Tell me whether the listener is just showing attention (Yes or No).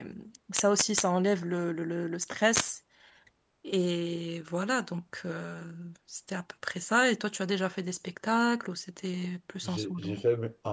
No